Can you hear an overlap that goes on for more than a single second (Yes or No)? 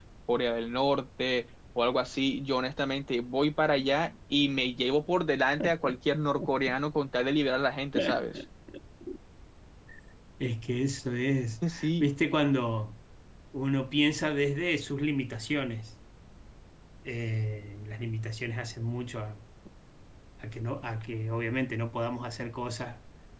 No